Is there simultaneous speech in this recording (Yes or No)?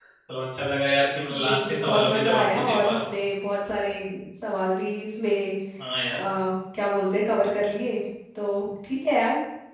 Yes